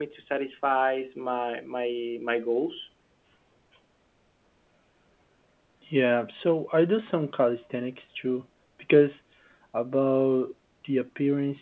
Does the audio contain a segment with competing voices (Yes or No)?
No